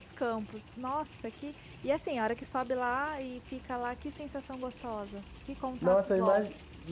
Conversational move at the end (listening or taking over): taking over